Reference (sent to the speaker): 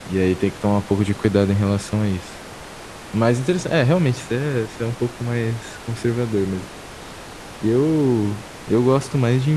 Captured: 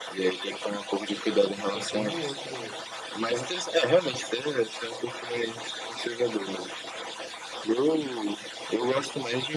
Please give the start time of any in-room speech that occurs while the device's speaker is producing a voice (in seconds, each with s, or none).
1.6 s